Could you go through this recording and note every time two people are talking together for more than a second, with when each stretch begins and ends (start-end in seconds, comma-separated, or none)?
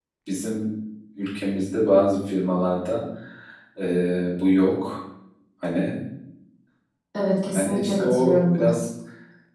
7.5-8.8